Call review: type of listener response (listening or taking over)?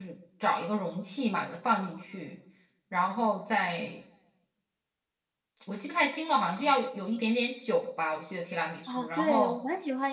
taking over